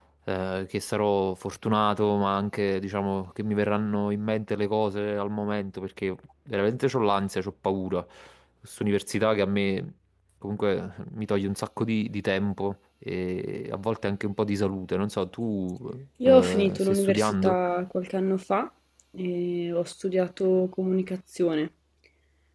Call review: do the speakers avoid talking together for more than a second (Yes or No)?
No